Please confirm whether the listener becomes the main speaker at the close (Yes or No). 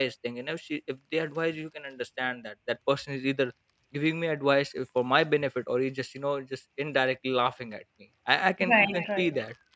No